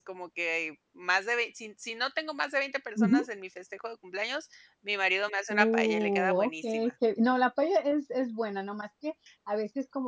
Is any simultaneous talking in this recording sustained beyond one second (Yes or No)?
Yes